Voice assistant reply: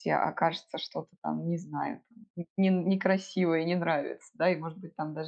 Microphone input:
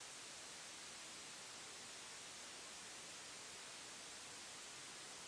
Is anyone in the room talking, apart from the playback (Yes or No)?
No